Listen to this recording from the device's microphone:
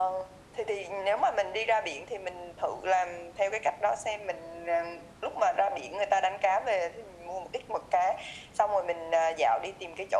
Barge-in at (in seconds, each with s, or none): none